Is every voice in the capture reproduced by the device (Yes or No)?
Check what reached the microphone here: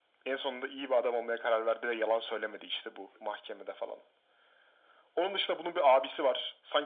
Yes